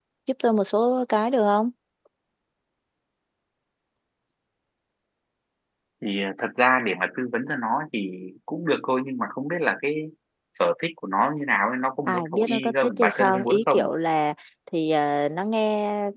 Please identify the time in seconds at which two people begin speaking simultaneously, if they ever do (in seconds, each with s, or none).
12.1 s